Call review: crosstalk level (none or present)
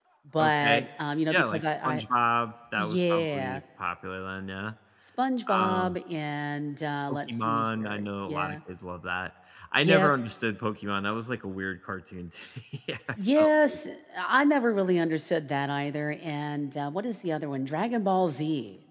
present